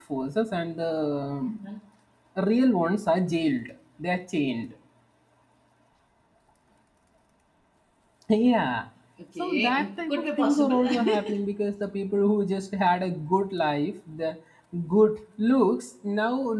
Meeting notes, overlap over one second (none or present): present